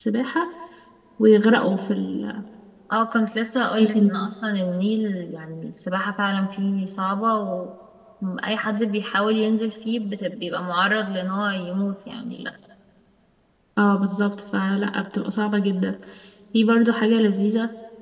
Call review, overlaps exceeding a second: none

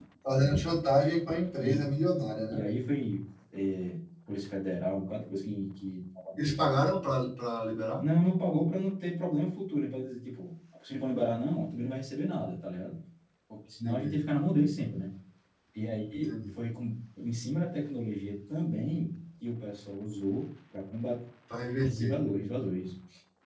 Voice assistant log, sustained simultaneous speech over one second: none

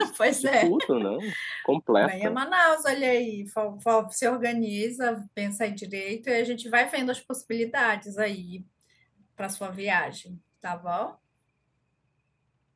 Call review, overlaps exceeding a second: none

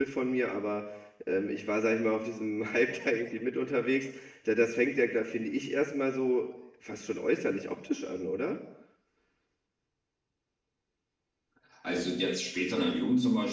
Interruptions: none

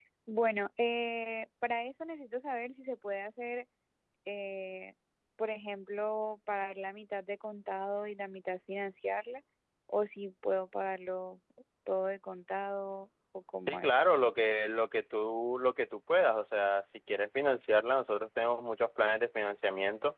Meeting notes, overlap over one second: none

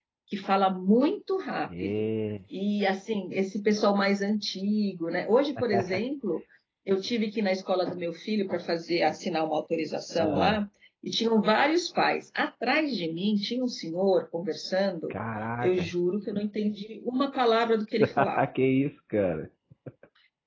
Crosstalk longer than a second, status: none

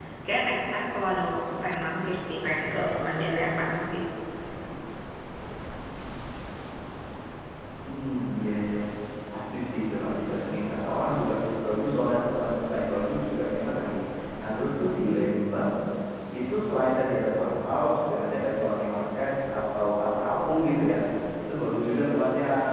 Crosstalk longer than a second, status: none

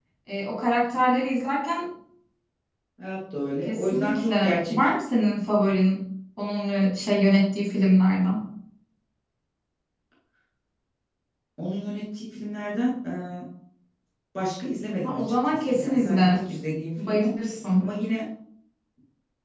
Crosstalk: present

